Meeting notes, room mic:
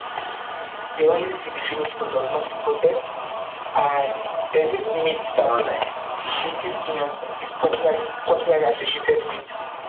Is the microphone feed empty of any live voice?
No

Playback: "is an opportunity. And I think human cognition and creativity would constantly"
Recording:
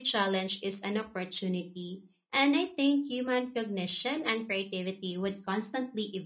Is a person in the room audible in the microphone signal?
No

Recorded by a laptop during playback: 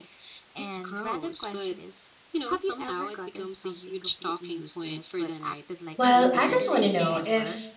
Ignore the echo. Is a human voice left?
Yes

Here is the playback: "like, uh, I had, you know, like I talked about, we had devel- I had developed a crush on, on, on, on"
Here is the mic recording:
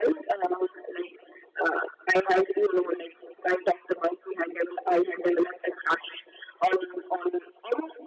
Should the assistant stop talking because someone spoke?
No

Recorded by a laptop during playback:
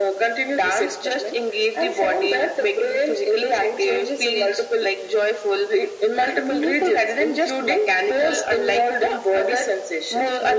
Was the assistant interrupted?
No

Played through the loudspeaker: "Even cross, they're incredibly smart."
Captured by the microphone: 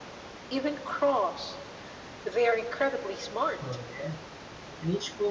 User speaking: Yes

